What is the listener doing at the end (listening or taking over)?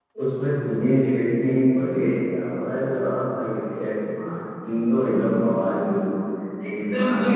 taking over